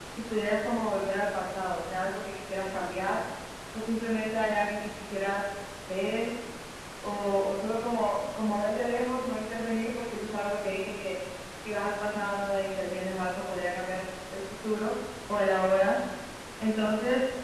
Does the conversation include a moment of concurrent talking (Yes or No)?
No